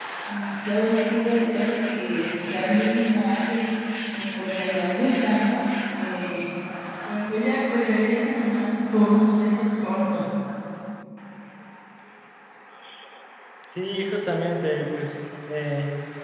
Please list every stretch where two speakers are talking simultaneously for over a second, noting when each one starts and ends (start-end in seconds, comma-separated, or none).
none